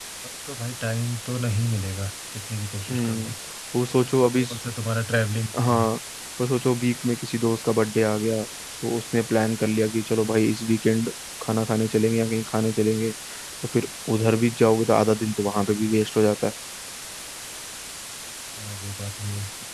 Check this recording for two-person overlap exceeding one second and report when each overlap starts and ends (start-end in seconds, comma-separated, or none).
none